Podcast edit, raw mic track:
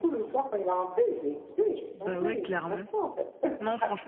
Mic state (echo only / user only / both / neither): both